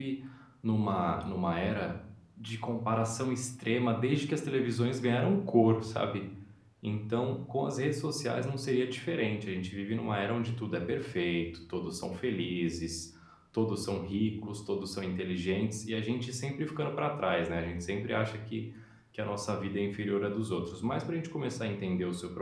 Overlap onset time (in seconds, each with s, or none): none